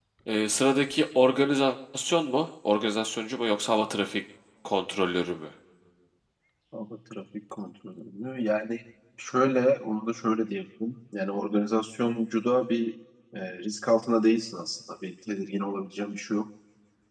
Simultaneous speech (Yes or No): No